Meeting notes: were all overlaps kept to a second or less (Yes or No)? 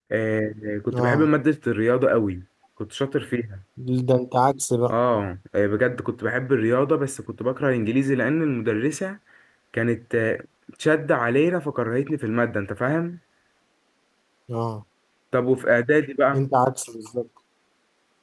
Yes